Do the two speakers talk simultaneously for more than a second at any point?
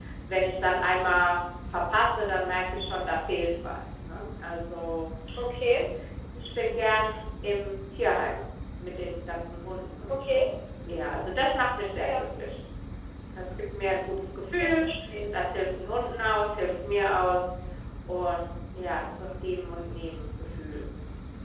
No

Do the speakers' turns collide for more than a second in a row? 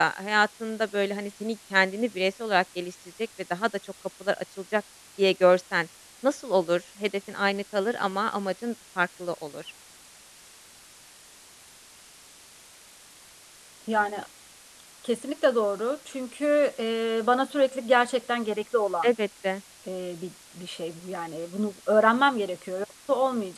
No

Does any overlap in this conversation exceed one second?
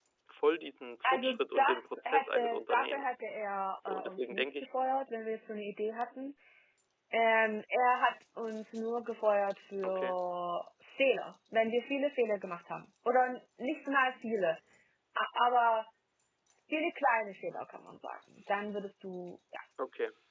Yes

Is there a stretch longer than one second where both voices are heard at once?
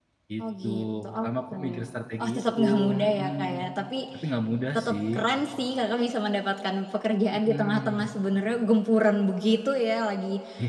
Yes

